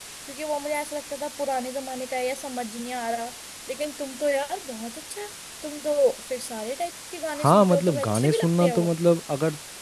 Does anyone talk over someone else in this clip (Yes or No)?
Yes